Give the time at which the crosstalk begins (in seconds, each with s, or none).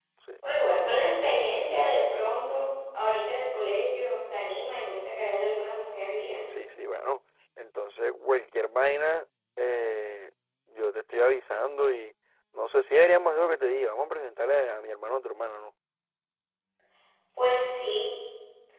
none